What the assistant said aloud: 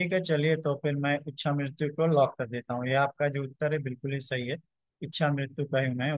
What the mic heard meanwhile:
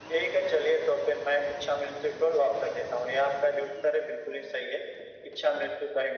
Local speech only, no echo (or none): none